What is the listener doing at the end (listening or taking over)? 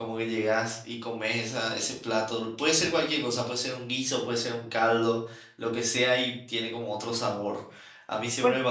taking over